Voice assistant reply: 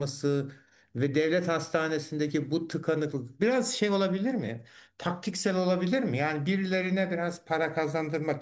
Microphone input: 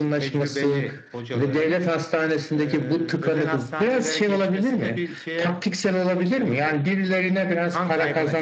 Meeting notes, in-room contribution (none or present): present